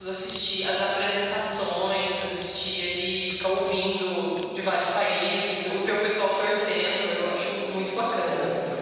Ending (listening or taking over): taking over